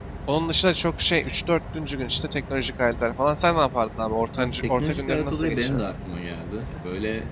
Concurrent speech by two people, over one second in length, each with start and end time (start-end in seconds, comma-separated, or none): 4.4-5.8